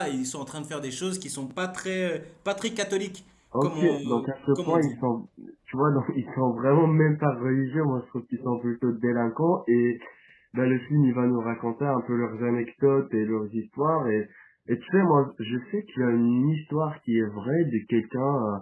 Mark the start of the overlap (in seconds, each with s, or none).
3.5 s